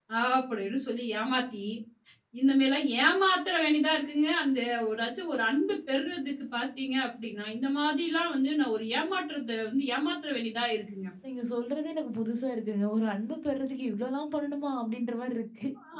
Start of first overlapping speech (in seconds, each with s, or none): none